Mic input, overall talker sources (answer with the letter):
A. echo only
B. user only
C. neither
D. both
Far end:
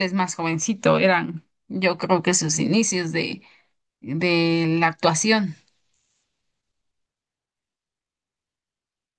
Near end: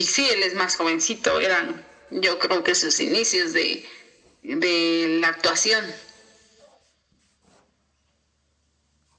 A